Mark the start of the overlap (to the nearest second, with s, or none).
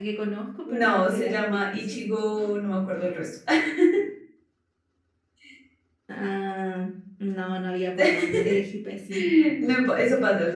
1 s